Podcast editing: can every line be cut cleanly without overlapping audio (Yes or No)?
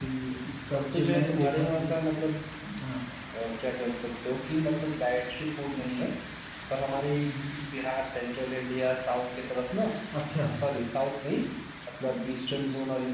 No